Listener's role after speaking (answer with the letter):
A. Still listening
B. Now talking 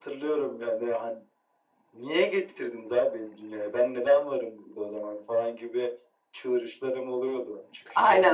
B